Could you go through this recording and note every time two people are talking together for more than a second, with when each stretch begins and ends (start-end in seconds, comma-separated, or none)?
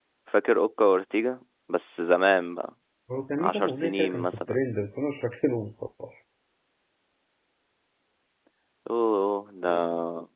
3.4-4.6